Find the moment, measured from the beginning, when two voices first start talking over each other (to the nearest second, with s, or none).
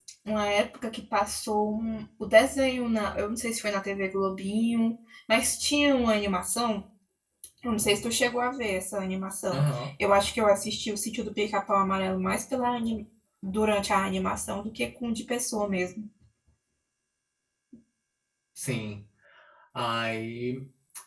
none